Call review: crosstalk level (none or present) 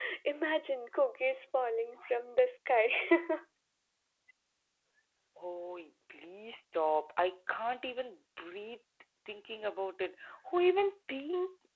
none